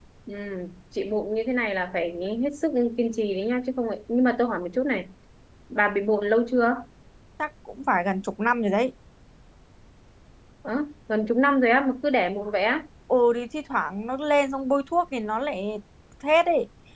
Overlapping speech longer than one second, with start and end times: none

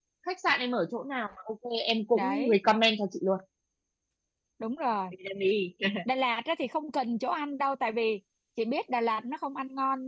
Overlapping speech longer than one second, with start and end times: none

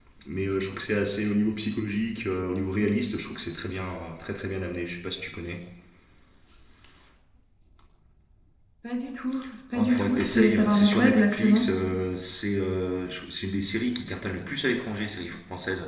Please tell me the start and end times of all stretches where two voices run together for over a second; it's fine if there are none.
9.8-11.7

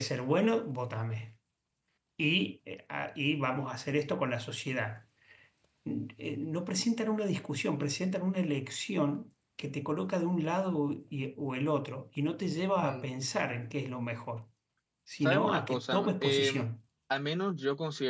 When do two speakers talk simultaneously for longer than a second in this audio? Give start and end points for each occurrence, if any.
15.2-16.7

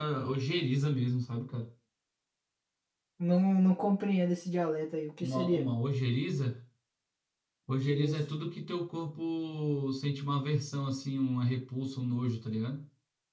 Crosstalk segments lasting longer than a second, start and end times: none

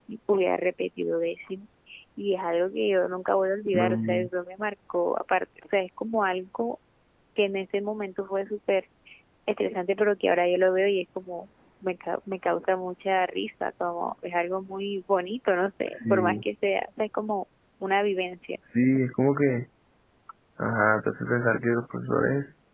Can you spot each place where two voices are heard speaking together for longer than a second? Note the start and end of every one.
none

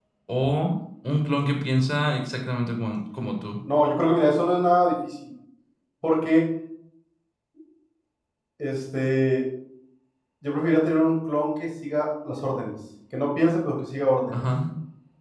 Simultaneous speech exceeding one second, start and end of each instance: none

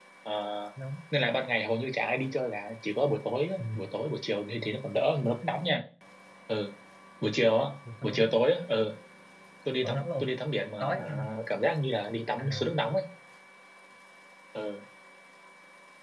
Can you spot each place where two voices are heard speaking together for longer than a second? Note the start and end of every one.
none

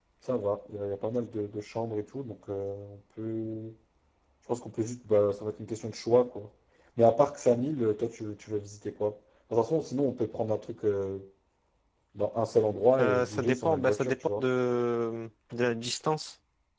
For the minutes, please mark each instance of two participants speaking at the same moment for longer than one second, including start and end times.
13.0-14.5

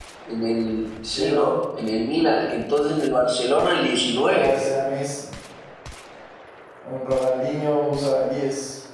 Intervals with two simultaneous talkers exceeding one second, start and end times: none

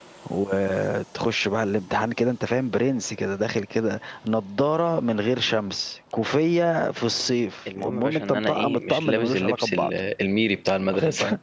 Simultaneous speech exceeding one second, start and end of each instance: 7.8-9.9

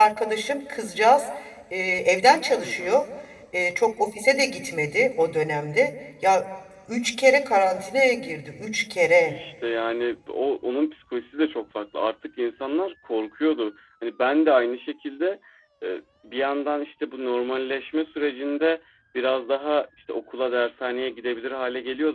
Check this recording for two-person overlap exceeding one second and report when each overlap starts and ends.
none

